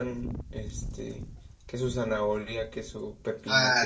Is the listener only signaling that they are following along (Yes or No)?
No